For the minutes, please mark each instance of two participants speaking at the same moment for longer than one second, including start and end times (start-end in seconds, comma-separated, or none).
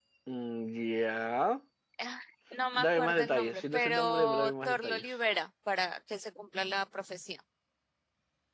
2.8-5.2